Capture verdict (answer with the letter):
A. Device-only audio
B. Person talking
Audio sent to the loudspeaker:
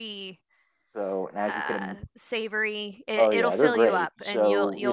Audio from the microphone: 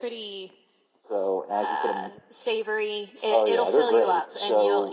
A